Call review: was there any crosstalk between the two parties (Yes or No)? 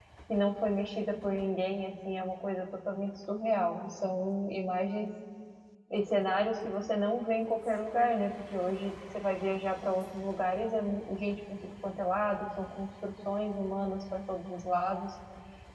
No